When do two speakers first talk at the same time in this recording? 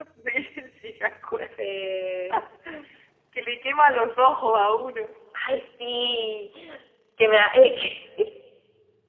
none

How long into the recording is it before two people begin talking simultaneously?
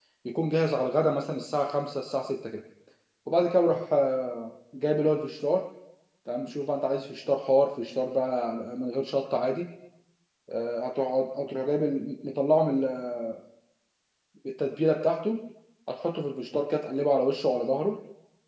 none

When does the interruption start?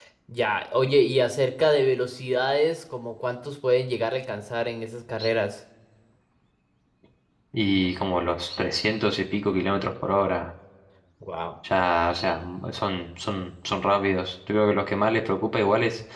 none

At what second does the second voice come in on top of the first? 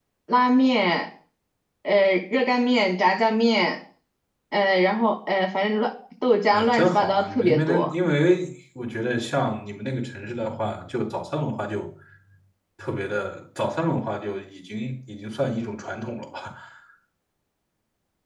6.5 s

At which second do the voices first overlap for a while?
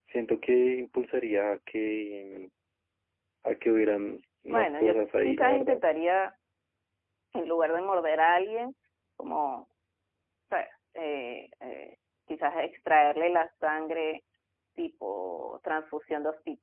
4.5 s

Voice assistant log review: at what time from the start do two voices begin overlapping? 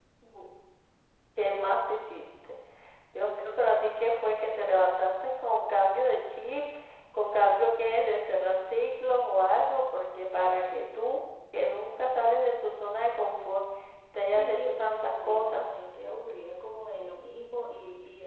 14.3 s

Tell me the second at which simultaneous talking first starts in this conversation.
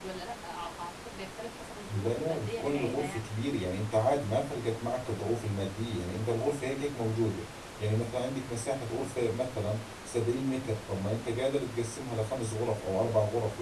1.9 s

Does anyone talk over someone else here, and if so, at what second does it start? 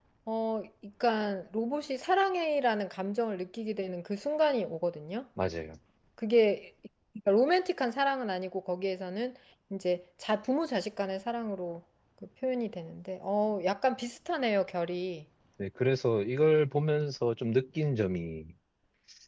none

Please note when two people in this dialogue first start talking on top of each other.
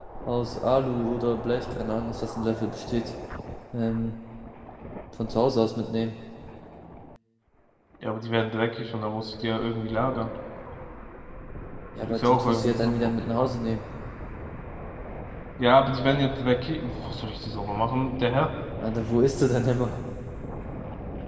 12.1 s

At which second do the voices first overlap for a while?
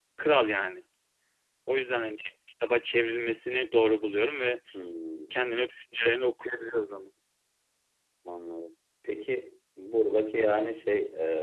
none

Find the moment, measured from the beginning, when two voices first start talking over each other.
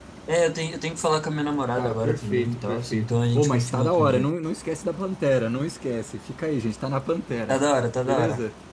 1.8 s

